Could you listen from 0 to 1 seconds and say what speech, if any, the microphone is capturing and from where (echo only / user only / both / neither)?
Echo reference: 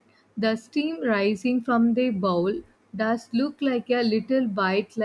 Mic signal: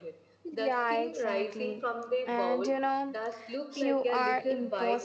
both